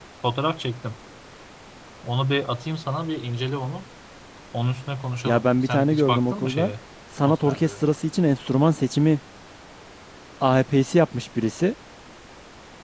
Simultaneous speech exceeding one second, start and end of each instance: 5.2-6.7

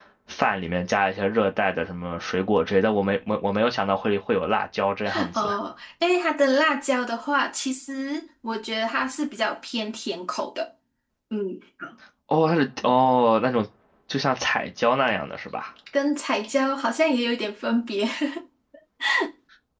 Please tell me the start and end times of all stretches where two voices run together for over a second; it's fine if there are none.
none

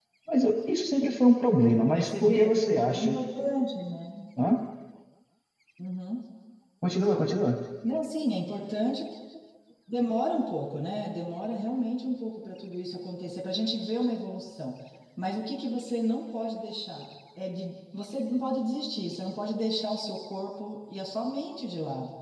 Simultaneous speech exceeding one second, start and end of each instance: 1.9-3.2

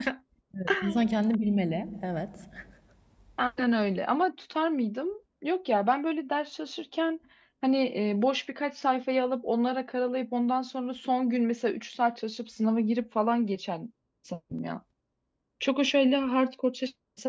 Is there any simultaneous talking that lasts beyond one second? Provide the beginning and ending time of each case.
none

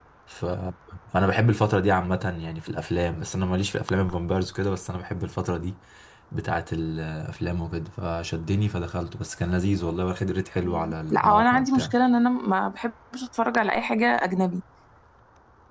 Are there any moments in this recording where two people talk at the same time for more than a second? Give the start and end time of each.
10.6-11.9

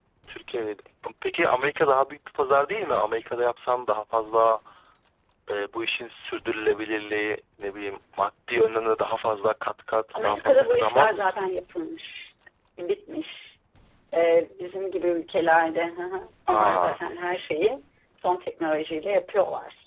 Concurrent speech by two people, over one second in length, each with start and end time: 10.2-11.5

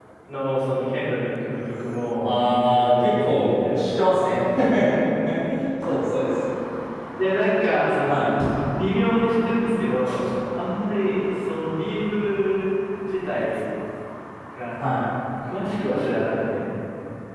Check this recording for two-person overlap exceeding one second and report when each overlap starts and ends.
2.2-4.1

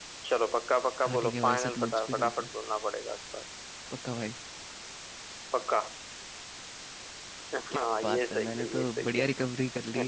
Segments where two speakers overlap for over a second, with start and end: 1.0-2.5, 7.7-9.2

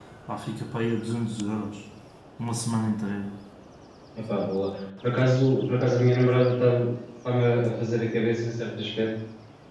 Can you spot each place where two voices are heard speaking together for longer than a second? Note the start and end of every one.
none

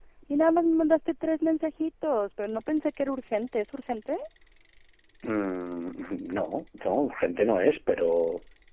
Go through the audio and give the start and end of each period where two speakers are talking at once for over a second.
none

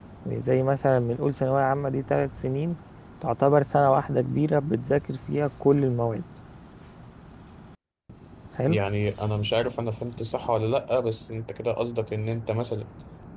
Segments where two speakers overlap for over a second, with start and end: none

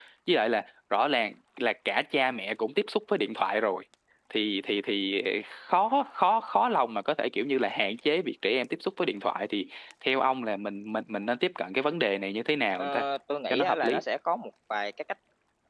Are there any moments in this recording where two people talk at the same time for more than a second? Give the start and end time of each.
none

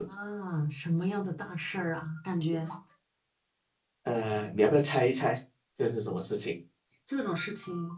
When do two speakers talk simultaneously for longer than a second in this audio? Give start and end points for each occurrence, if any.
none

